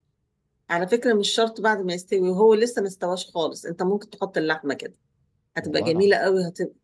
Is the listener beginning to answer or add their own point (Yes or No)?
No